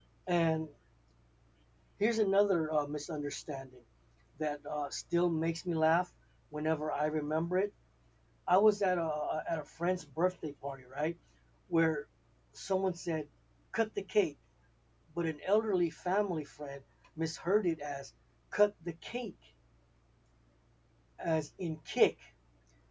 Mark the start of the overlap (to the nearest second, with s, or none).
none